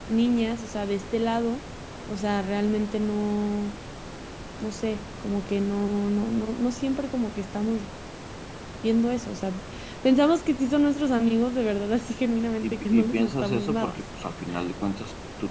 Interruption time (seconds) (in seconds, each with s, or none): 12.6 s